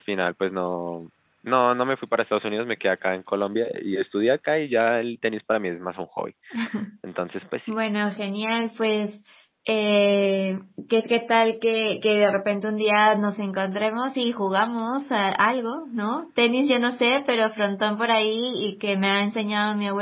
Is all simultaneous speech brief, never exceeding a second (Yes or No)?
Yes